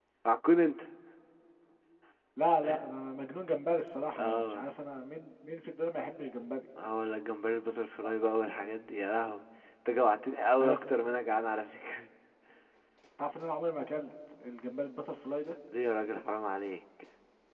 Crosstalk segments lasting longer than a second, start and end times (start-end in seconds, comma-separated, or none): none